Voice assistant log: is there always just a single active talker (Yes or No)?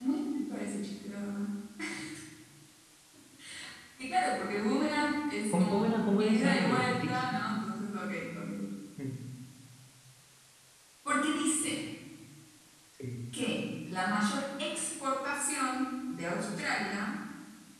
No